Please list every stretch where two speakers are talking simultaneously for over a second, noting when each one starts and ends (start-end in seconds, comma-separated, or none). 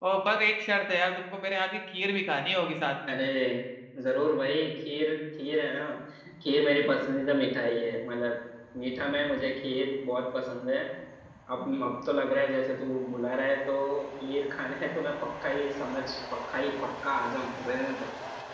none